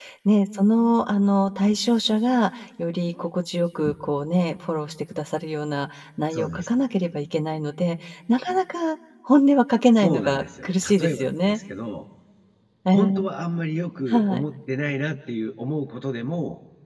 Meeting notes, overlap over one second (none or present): present